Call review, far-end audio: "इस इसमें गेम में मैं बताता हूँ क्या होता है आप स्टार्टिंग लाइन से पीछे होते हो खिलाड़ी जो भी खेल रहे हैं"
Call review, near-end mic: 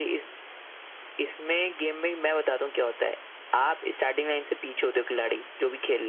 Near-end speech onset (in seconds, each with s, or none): none